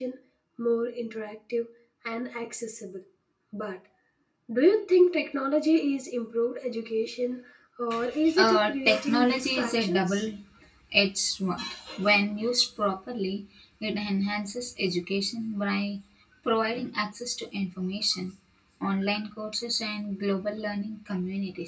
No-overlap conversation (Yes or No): No